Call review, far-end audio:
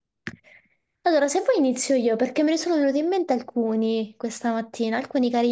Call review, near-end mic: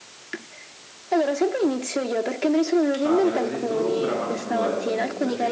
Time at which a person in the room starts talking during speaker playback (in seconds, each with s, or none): 3.0 s